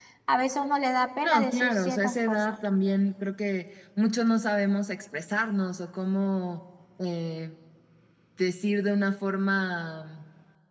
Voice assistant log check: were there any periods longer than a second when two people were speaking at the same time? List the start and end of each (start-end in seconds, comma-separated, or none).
1.2-2.6